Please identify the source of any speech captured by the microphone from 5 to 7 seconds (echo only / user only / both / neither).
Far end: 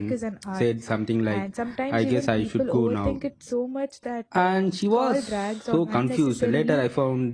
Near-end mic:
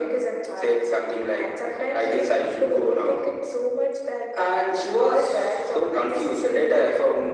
echo only